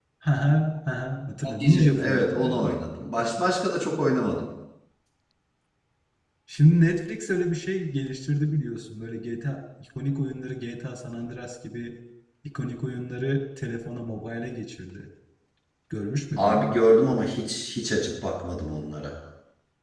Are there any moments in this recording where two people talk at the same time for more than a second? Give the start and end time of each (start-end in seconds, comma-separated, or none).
1.4-2.8